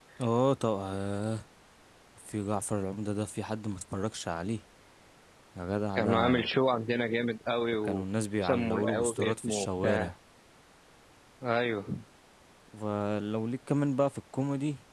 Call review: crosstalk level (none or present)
present